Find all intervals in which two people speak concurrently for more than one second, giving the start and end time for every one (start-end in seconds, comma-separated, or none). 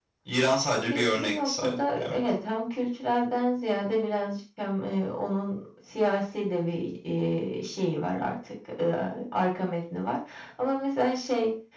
0.7-2.2